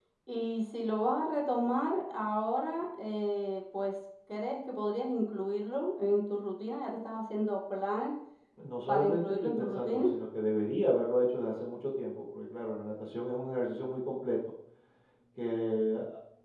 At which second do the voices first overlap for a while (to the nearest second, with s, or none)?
9 s